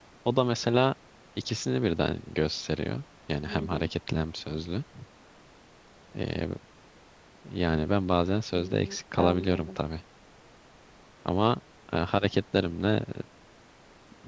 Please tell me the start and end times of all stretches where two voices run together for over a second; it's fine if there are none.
8.5-9.8

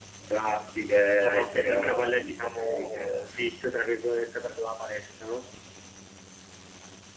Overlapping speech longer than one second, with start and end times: 1.2-3.3

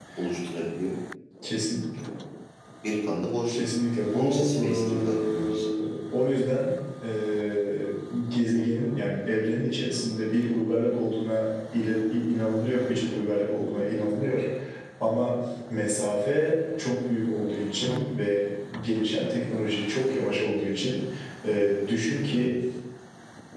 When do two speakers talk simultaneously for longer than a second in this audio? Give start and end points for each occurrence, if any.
4.1-5.8

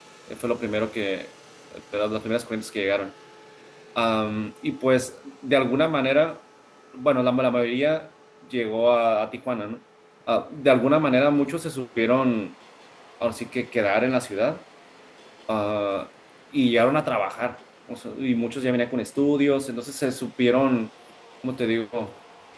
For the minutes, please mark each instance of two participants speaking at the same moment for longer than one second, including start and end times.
none

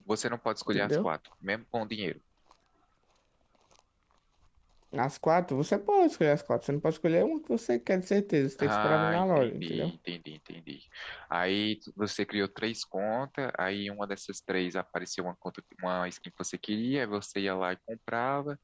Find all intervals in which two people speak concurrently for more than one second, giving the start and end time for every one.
8.6-9.9

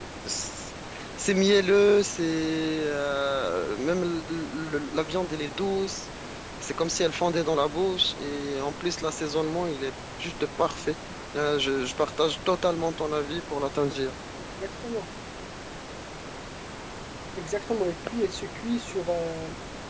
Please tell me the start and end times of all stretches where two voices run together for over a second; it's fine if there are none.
none

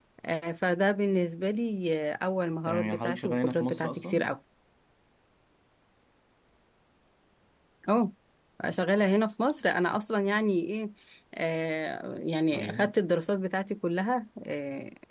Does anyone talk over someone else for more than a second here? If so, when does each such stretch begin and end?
2.7-4.3

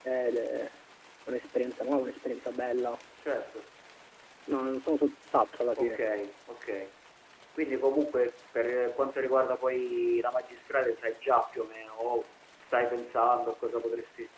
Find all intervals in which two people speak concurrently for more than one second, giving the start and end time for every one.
none

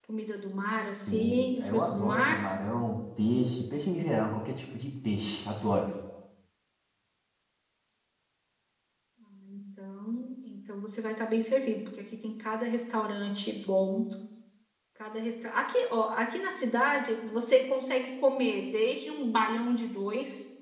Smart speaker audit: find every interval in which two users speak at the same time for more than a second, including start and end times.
1.1-2.4

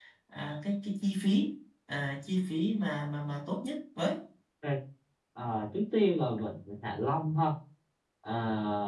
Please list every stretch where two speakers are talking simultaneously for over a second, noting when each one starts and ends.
none

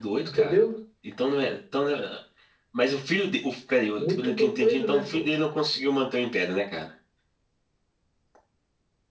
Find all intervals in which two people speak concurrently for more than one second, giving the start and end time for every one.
4.0-5.2

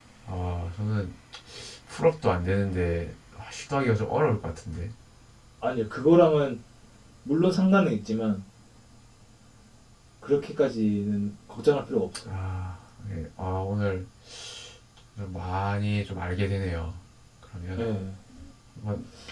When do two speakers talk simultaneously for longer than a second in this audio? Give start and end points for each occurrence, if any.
none

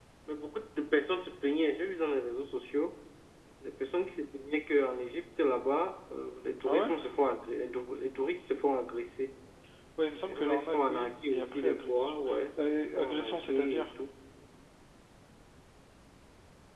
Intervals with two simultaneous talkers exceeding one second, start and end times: 10.3-12.1, 12.6-13.9

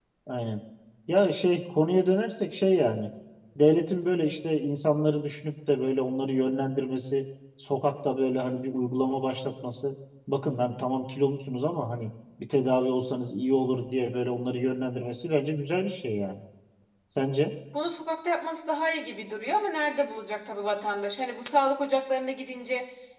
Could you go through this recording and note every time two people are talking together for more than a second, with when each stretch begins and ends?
none

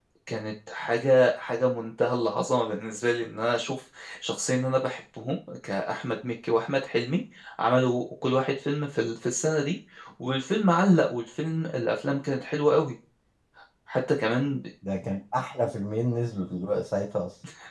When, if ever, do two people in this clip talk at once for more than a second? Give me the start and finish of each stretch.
none

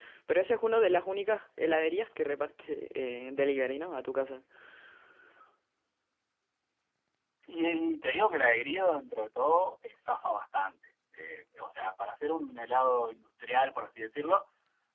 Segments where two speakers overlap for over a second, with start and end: none

